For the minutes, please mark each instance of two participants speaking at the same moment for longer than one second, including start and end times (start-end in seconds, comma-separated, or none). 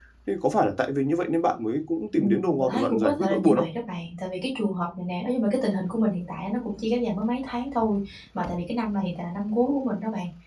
2.2-3.6